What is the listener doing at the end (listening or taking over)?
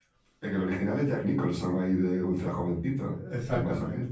taking over